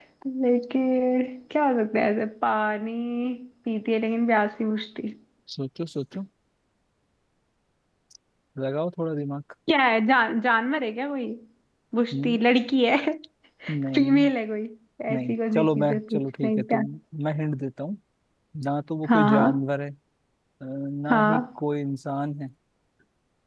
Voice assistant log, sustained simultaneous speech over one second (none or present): present